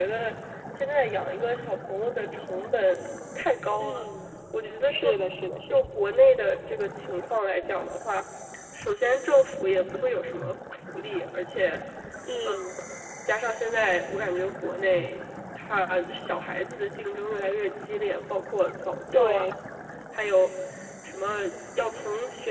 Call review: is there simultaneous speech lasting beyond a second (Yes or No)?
No